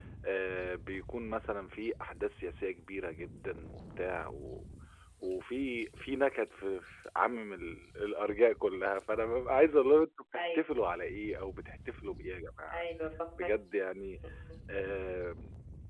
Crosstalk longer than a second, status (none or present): none